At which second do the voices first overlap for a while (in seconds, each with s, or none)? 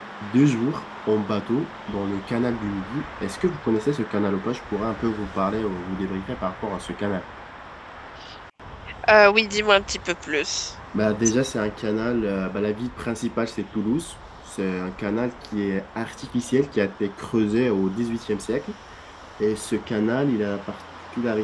none